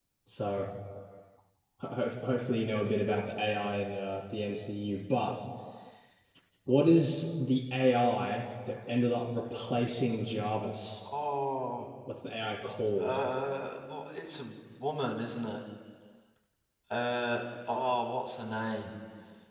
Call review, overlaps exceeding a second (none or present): none